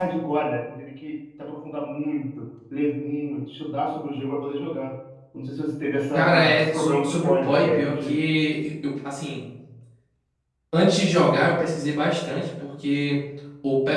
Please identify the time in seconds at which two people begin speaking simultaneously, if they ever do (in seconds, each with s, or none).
6.1 s